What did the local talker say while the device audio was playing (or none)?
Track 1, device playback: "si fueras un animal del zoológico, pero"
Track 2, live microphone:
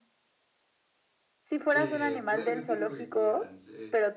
eh, pueden decir lo que quieran. Se,